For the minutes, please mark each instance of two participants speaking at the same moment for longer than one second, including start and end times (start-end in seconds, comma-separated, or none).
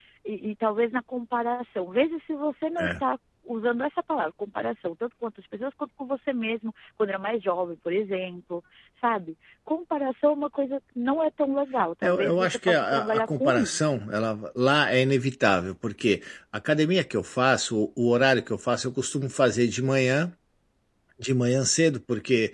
12.0-13.9